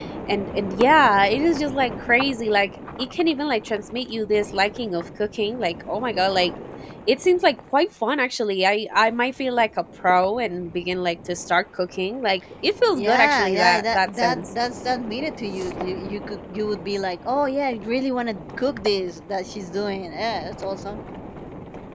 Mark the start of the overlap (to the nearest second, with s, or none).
13 s